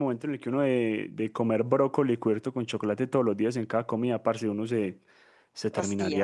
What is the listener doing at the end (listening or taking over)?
listening